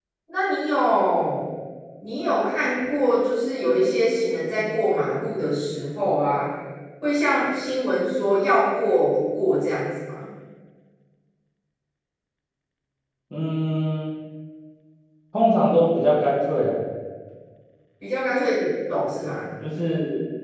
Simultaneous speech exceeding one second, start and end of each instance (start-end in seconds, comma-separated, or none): none